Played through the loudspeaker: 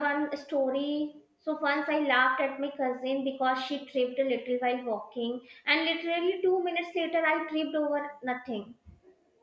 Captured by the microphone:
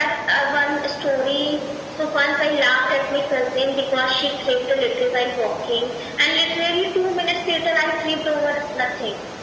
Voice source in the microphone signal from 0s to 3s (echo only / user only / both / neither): echo only